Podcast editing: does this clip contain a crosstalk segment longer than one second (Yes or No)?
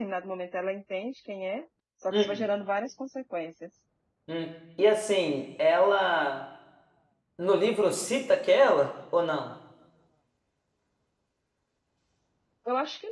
No